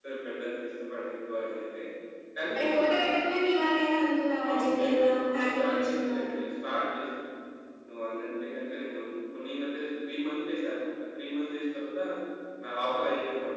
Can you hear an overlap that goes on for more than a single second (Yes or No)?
Yes